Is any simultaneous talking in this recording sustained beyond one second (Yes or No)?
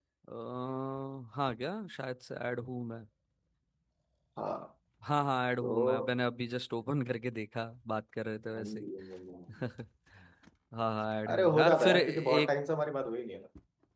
Yes